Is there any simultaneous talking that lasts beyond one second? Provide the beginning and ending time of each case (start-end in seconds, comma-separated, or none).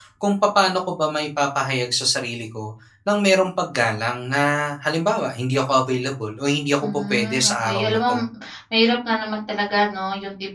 6.8-8.2